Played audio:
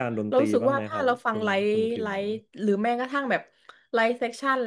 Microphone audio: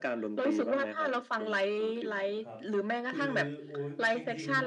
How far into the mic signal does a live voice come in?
2.4 s

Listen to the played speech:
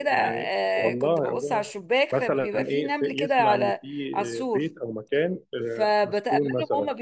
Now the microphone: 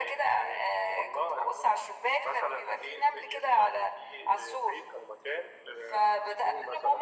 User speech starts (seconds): none

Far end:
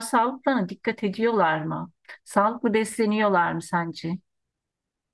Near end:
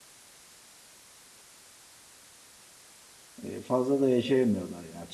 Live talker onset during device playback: 3.4 s

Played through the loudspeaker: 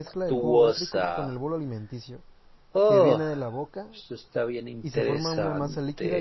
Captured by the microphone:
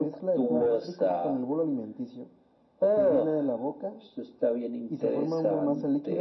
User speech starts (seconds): none

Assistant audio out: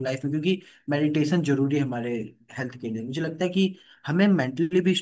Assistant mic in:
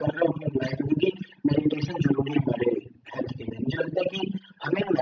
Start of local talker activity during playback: none

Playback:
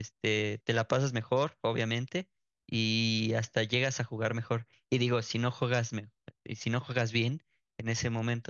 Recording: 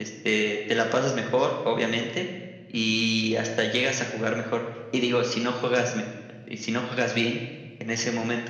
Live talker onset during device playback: none

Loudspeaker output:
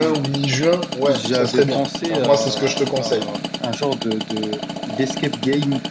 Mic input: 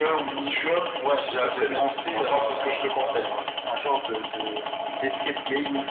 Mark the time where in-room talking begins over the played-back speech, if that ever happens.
none

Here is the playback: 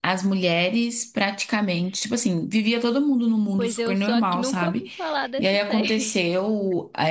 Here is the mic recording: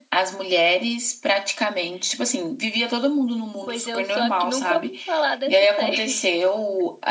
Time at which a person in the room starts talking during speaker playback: none

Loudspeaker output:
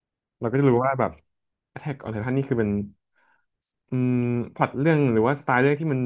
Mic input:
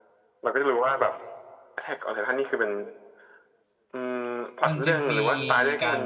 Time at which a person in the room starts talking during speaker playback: 4.7 s

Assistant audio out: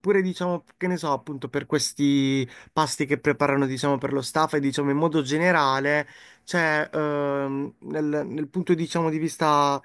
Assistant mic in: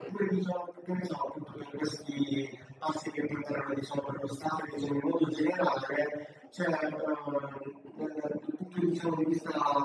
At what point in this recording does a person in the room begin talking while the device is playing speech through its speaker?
none

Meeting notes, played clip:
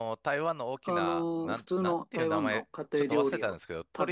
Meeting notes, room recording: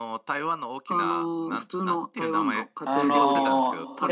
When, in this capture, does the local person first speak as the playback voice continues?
2.8 s

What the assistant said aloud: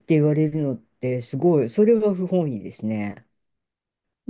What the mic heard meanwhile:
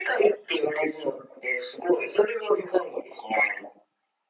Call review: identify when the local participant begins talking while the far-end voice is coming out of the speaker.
none

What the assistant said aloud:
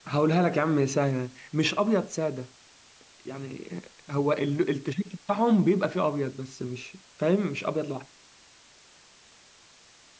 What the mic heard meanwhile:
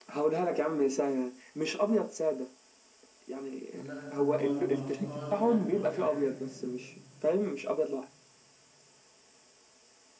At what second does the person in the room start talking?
3.7 s

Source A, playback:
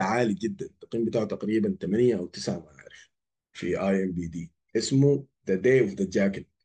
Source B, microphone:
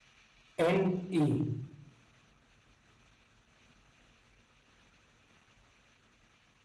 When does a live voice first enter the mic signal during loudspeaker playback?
0.6 s

